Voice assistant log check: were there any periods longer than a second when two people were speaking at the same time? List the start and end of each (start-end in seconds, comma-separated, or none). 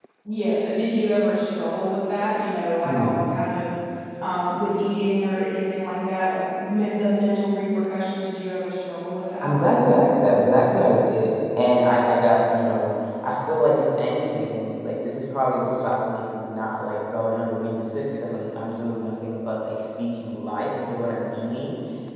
none